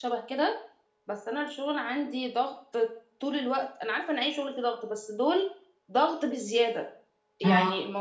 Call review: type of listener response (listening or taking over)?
listening